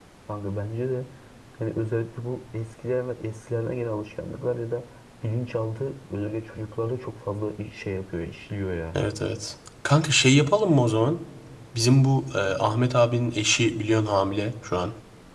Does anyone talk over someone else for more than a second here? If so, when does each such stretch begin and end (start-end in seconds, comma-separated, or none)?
none